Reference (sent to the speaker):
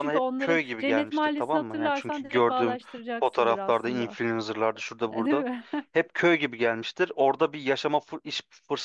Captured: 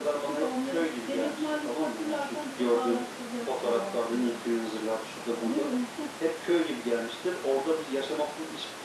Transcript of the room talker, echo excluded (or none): none